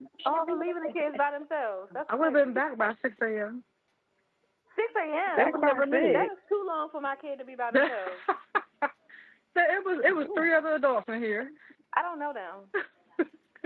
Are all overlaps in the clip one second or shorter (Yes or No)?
No